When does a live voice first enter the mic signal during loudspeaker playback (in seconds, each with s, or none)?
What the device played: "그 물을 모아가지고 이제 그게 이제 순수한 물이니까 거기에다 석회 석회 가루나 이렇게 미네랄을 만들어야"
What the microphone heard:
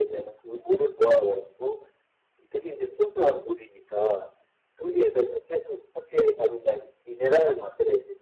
none